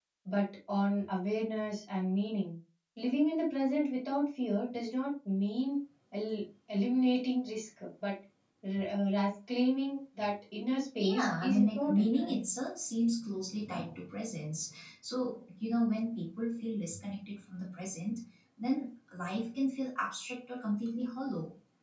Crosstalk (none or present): present